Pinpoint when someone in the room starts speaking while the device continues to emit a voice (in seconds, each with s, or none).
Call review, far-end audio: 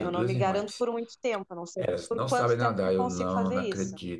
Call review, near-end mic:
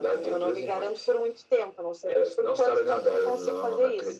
none